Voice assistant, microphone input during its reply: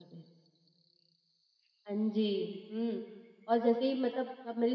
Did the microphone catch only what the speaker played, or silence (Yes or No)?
Yes